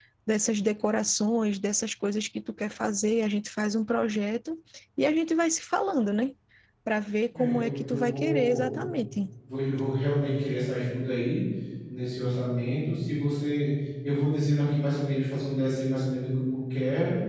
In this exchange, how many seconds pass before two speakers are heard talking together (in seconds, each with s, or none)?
7.3 s